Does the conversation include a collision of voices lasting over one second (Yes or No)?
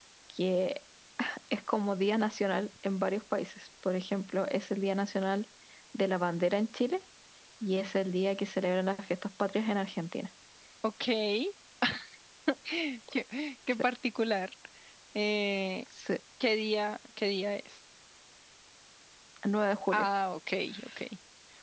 No